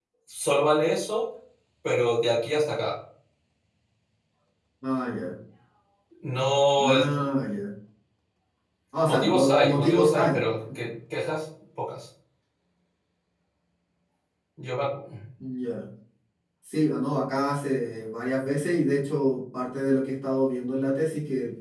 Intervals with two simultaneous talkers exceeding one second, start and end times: 9.1-10.4

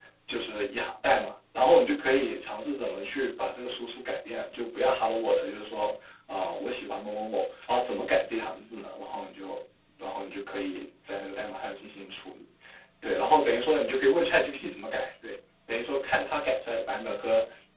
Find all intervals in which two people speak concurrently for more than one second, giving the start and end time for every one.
none

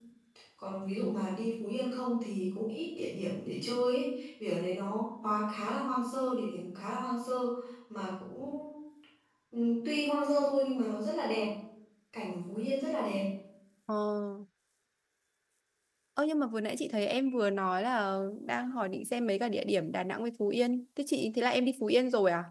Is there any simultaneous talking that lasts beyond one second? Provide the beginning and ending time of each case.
none

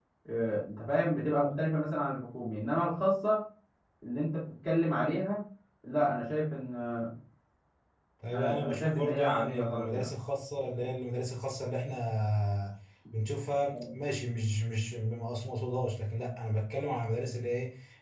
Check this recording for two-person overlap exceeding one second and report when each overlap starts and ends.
8.3-10.1

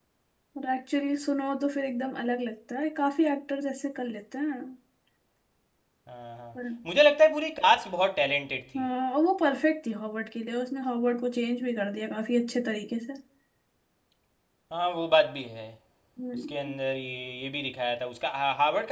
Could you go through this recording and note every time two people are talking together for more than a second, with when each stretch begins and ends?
none

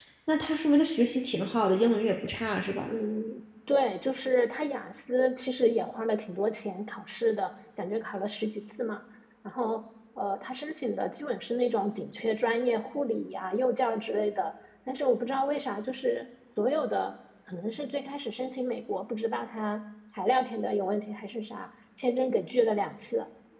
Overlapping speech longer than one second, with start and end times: none

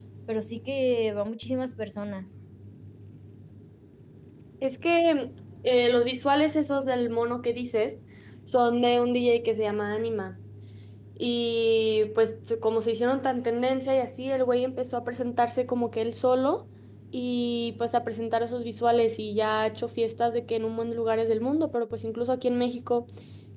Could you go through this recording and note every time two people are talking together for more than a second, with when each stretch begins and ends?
none

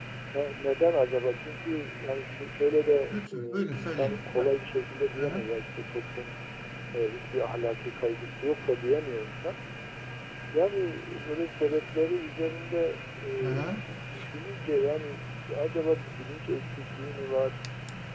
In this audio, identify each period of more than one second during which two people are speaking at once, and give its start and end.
3.1-4.5

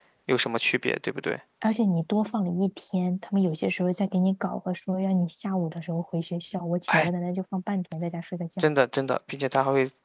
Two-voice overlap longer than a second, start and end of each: none

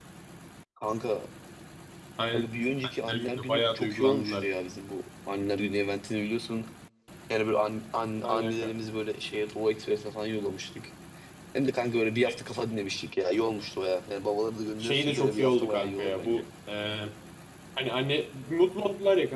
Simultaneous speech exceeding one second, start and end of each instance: 3.1-4.4, 14.8-16.4

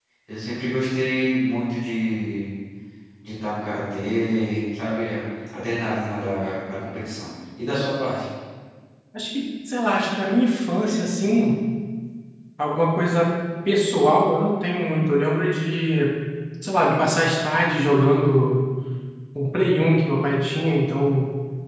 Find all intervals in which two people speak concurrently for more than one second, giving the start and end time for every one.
none

